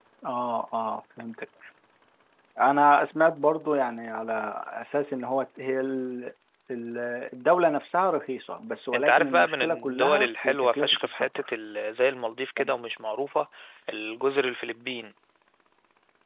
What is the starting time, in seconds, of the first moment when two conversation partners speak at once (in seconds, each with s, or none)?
8.9 s